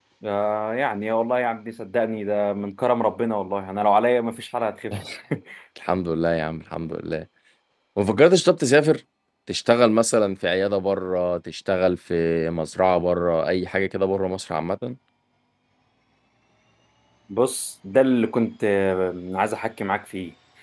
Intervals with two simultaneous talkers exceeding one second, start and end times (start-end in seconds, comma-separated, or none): none